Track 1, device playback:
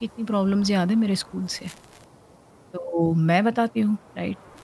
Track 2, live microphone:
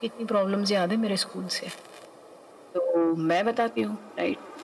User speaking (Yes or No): No